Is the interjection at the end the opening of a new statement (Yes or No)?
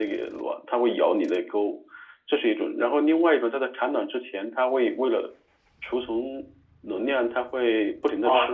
Yes